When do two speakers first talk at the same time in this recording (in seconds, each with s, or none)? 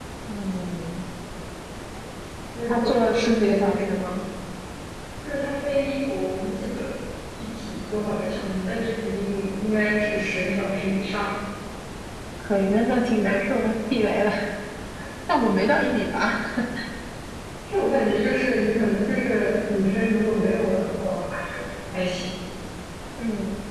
2.7 s